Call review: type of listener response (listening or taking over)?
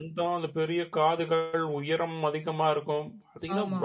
listening